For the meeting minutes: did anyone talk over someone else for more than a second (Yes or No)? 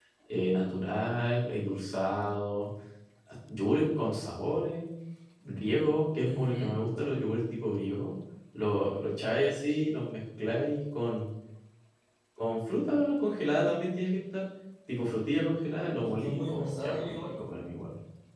Yes